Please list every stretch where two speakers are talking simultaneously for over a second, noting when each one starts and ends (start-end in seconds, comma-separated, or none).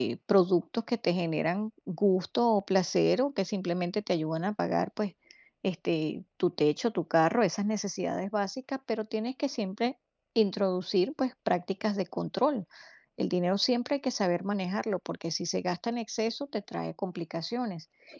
none